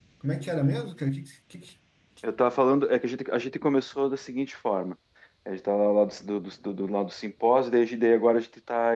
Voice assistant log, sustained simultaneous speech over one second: none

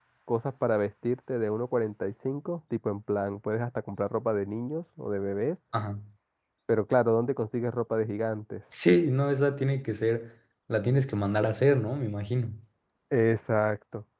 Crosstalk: none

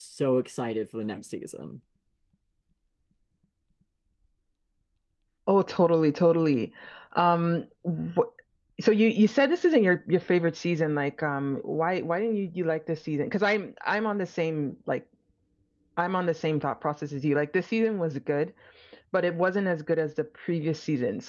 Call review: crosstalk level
none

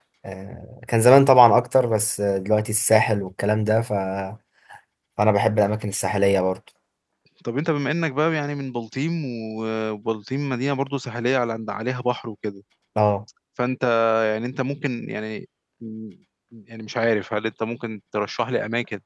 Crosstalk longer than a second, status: none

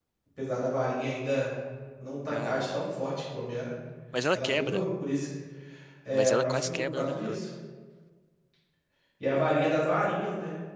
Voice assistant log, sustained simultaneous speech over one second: present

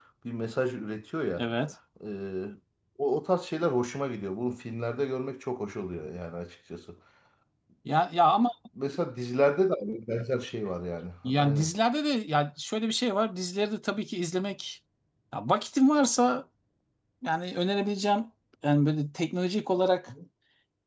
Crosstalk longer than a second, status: none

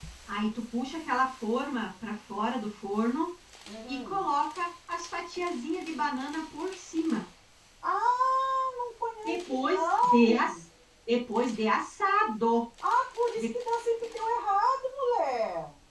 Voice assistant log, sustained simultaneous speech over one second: present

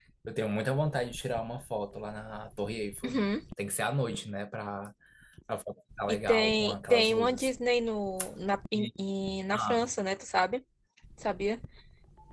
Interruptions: present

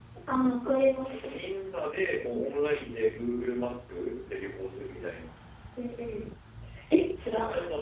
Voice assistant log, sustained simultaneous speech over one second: none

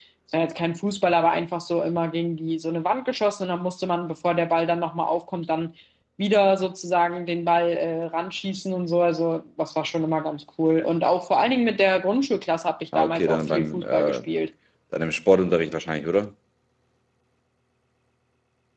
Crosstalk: present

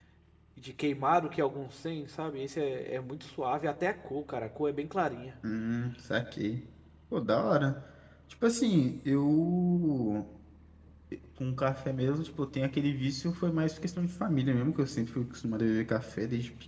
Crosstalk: none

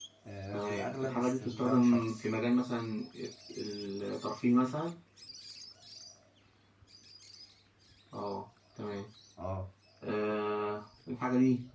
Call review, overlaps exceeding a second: present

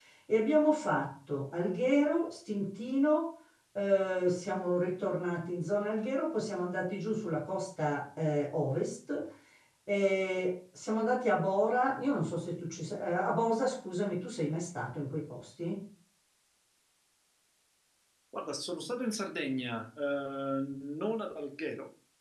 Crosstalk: none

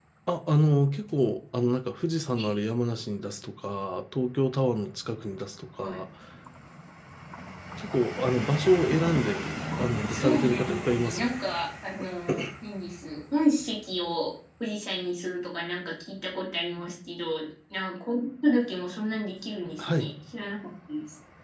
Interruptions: present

